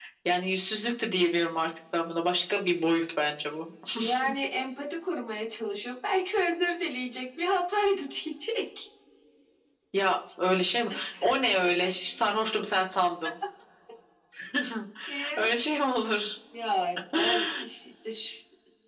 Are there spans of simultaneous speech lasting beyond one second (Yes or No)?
No